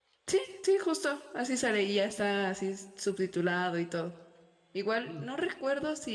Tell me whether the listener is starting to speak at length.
No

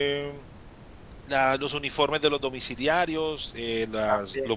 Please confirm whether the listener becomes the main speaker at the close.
No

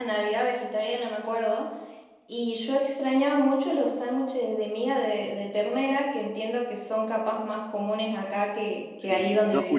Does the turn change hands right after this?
Yes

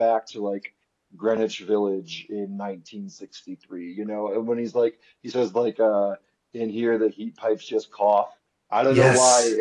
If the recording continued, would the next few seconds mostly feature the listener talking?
No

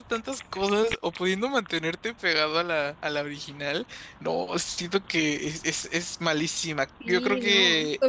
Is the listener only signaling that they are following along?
No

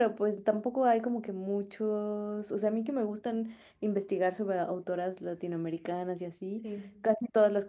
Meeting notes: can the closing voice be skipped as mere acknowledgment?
Yes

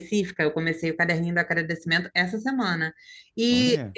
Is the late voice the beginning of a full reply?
No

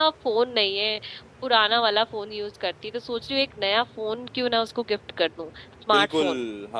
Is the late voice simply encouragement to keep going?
No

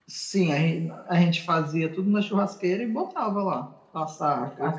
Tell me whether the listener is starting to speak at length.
Yes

